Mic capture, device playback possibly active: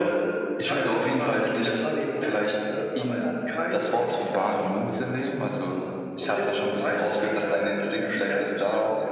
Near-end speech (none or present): none